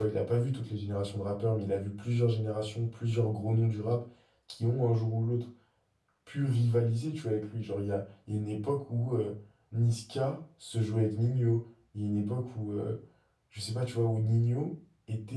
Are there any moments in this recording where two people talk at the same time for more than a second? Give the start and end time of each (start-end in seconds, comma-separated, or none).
none